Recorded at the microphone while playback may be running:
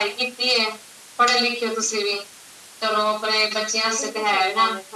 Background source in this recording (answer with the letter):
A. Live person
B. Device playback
A